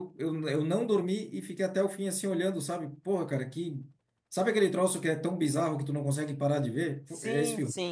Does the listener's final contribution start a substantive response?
Yes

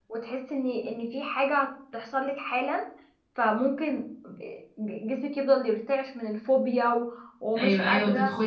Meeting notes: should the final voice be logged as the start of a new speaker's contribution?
Yes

